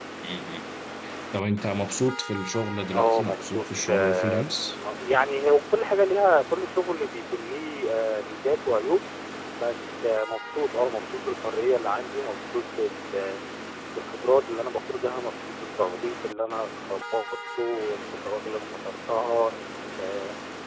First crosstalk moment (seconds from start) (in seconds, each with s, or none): 2.9 s